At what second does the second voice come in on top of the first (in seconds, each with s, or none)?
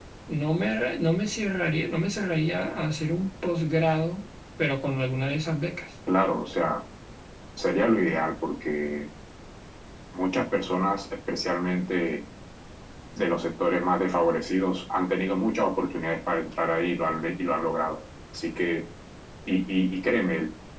none